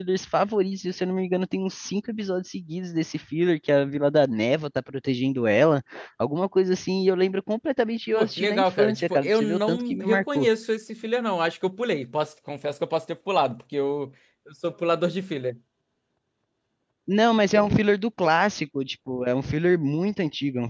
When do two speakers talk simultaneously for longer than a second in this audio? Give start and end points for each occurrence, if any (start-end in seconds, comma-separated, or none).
8.1-10.5